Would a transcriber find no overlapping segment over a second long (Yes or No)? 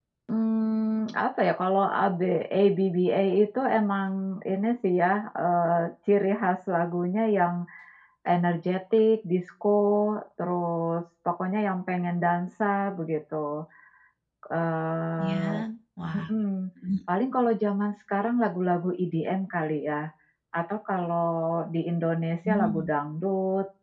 Yes